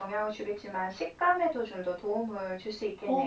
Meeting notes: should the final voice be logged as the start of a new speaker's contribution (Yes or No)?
Yes